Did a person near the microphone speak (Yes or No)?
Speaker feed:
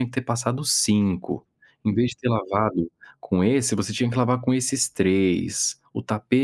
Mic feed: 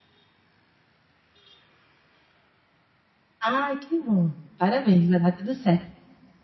Yes